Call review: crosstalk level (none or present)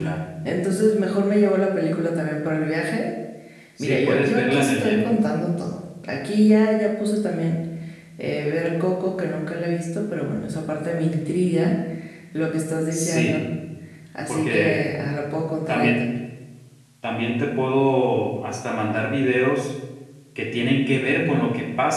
present